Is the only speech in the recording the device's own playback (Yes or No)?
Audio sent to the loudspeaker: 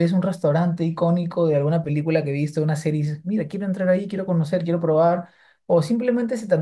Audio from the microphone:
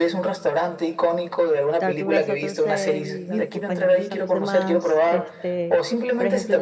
No